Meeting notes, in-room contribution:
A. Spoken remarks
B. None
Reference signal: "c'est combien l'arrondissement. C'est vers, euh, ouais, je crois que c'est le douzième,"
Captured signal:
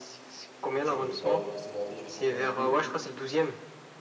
A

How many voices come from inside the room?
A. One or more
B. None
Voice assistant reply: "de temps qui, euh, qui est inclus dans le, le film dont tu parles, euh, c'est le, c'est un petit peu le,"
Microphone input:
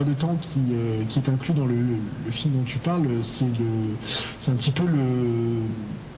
B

